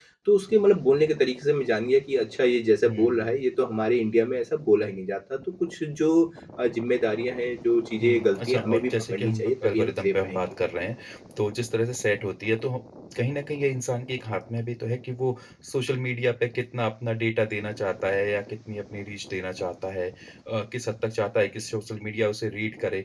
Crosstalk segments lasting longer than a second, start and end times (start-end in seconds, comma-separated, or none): 8.0-10.6